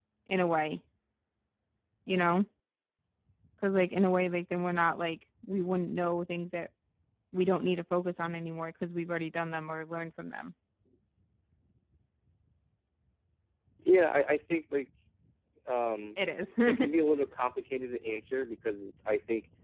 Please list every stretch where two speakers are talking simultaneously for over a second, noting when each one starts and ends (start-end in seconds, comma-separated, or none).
none